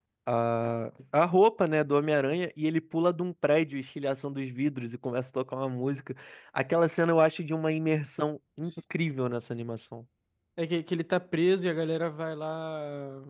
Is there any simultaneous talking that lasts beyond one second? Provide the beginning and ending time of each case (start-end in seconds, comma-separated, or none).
none